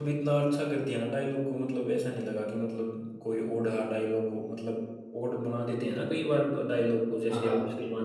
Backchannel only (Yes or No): No